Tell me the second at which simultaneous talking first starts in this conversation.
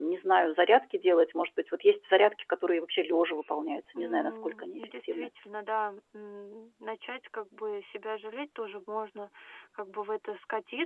3.9 s

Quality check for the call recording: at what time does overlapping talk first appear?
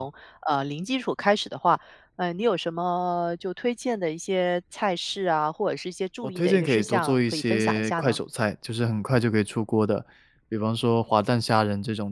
6.2 s

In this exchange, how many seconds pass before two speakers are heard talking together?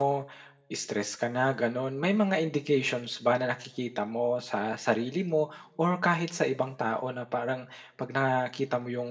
none

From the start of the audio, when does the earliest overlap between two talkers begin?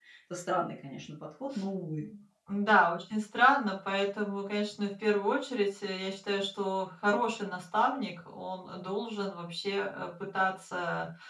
none

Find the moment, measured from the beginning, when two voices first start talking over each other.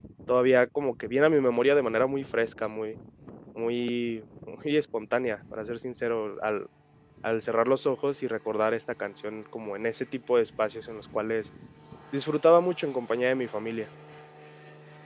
none

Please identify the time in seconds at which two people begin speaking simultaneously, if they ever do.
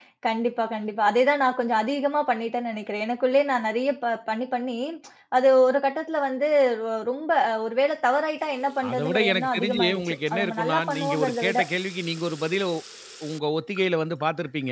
8.8 s

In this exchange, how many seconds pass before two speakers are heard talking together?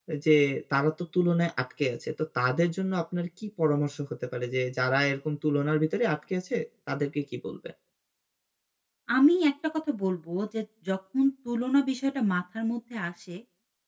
none

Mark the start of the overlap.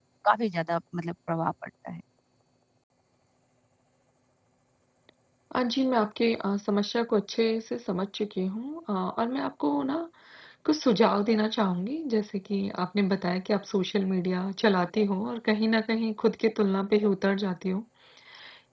none

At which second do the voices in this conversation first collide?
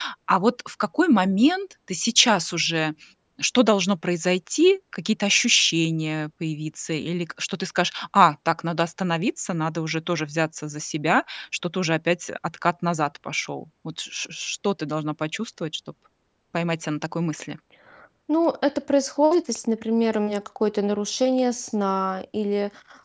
none

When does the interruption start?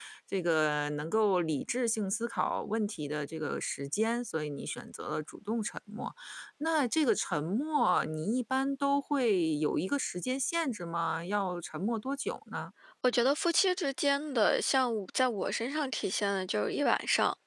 none

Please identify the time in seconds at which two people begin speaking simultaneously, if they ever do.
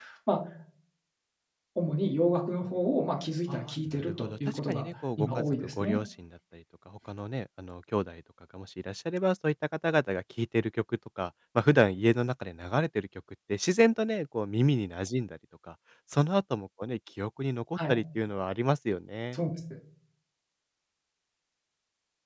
3.5 s

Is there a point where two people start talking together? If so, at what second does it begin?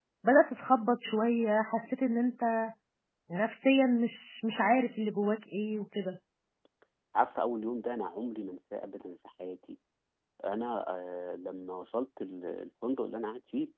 none

